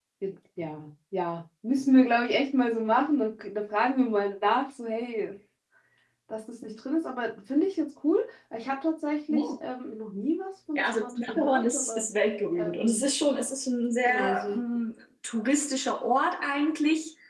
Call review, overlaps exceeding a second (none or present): present